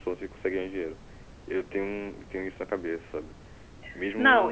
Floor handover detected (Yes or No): Yes